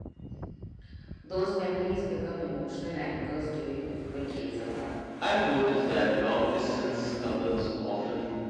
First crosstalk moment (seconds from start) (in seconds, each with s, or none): none